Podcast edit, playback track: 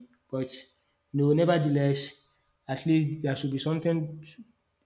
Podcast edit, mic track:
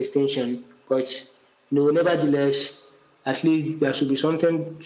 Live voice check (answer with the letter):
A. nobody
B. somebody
A